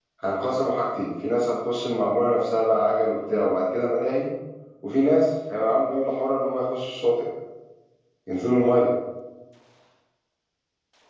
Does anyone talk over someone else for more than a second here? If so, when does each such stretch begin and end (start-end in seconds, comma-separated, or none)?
none